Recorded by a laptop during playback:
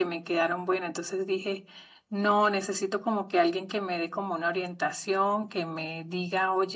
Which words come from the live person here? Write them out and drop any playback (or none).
none